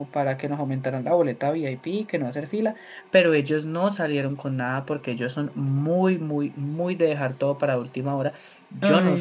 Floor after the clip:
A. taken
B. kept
B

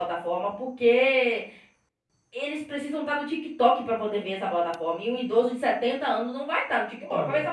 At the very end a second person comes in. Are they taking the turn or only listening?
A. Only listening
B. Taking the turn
B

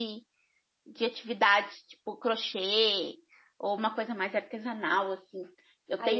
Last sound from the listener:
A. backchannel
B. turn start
A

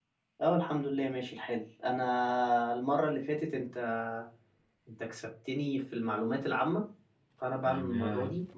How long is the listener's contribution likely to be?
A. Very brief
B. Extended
A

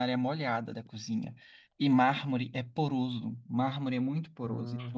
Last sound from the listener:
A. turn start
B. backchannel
B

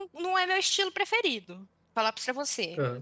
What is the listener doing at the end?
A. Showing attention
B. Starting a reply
A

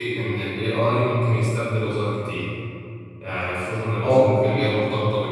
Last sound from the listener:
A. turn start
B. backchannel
B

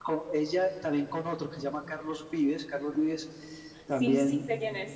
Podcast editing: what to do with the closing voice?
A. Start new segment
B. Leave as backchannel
A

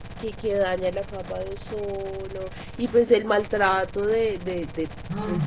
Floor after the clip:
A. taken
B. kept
B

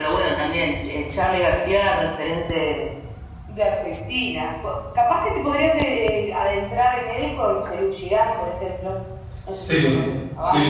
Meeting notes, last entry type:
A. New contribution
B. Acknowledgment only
A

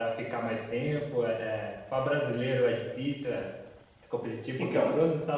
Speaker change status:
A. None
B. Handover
A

